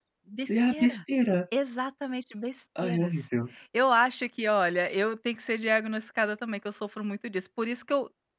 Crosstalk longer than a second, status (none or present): none